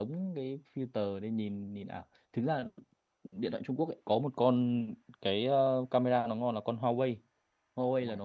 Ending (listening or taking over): listening